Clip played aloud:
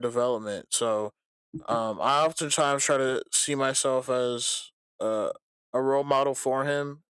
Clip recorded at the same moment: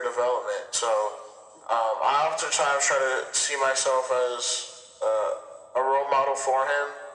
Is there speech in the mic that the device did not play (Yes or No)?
No